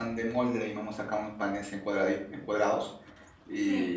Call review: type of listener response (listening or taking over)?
listening